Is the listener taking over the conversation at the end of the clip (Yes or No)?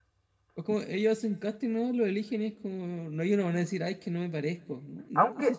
Yes